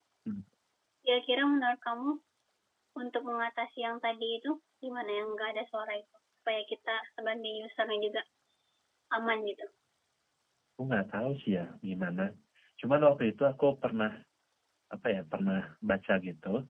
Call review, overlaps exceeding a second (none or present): none